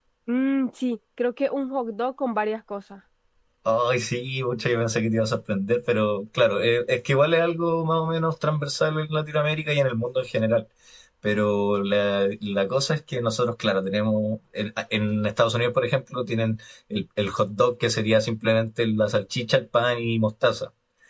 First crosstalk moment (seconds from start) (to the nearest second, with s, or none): none